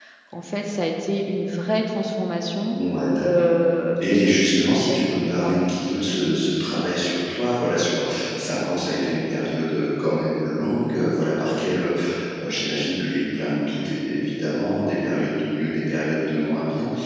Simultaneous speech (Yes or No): Yes